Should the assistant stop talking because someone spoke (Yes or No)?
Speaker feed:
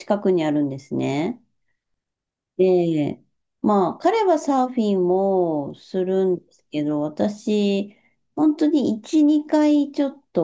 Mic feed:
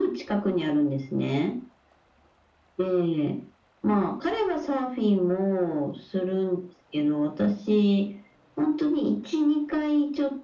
No